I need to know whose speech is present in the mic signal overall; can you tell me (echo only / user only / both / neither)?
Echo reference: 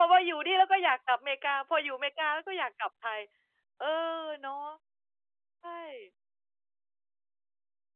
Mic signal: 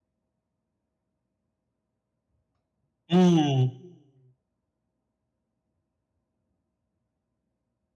user only